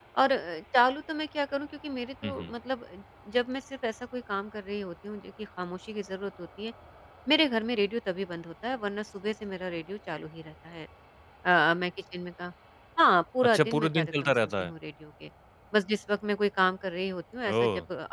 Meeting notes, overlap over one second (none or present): present